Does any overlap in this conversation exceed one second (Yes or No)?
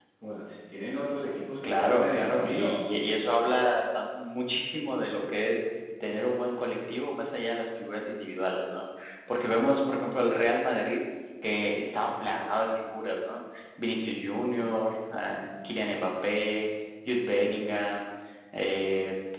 Yes